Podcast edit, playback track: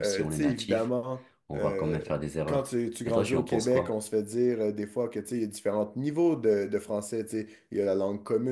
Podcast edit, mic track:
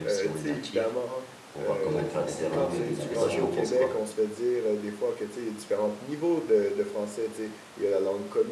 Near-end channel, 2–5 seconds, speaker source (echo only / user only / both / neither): both